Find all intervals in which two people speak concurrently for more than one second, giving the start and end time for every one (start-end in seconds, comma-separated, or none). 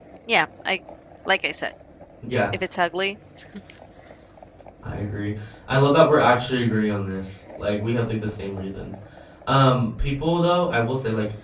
none